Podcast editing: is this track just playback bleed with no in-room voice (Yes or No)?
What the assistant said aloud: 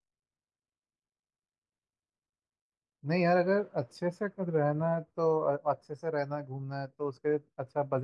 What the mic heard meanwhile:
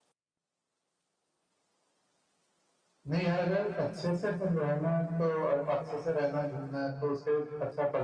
Yes